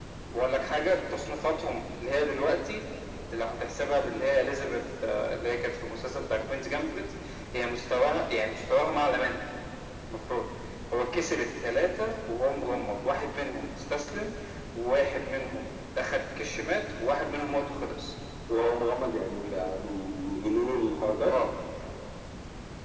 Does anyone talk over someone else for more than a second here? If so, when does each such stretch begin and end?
none

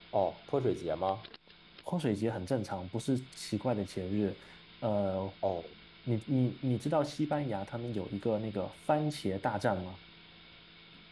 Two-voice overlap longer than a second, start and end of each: none

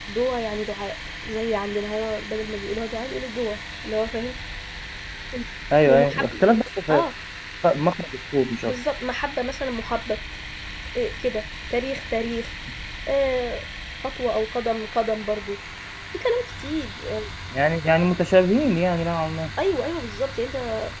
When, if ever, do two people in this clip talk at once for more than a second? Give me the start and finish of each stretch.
none

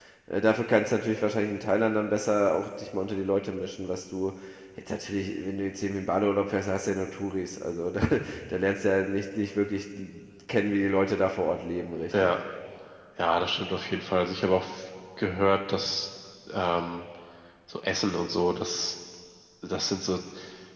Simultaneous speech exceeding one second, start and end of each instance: none

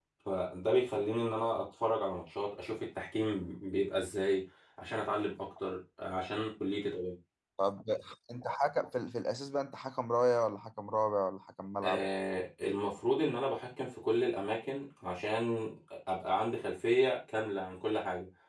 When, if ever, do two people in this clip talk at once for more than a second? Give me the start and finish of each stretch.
none

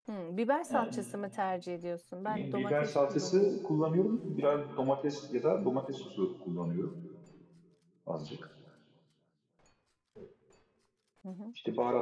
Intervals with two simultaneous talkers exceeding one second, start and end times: 2.3-3.6

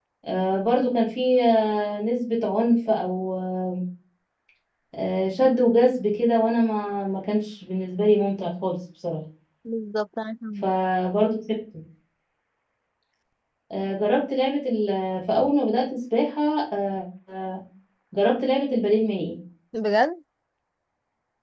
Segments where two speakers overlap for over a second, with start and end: none

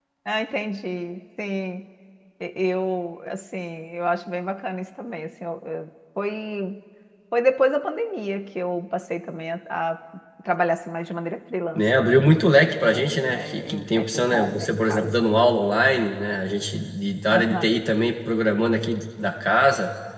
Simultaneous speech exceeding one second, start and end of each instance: 11.7-15.1

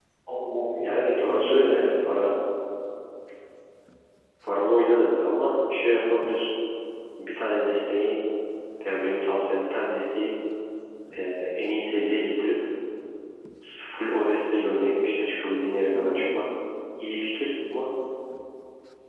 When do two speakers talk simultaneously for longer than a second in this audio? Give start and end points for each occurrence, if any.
0.8-2.3

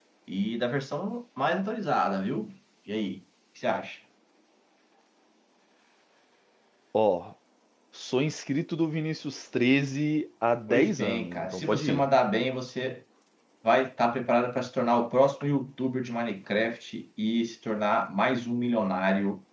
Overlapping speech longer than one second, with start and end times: 10.7-12.1

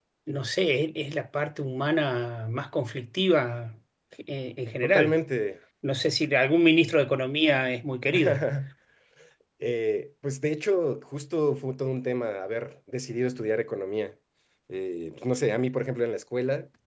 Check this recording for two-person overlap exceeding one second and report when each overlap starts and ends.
none

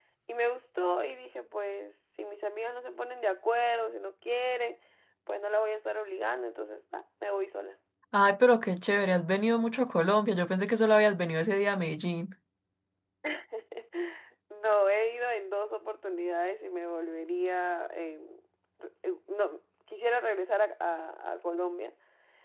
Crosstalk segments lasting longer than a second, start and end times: none

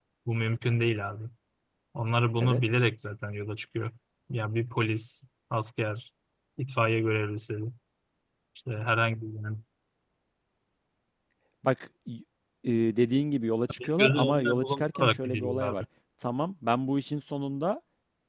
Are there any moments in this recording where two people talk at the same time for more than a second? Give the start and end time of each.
13.8-15.7

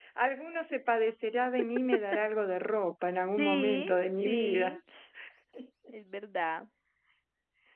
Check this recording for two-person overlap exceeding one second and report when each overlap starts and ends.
3.4-4.8

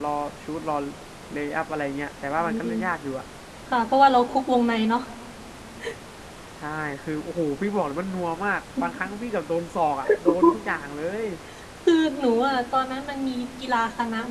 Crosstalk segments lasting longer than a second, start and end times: none

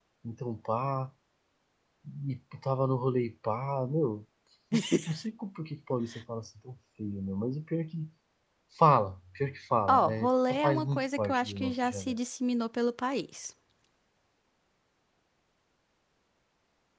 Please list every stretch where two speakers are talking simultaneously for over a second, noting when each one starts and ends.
9.9-12.2

